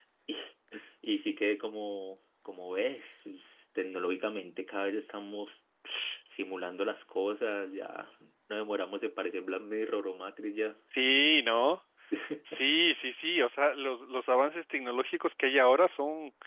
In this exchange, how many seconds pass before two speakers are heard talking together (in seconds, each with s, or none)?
none